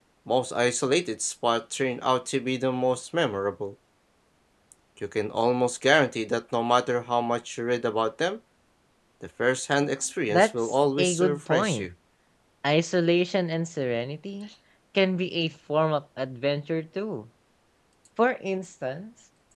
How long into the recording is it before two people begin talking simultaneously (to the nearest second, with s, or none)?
10 s